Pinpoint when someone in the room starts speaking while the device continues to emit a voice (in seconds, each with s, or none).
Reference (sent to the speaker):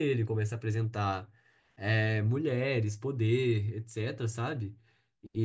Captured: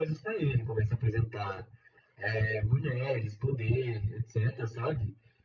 none